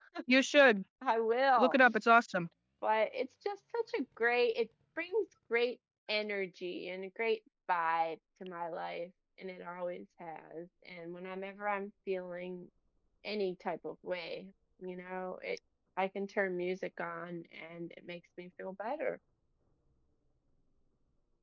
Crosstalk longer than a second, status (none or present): none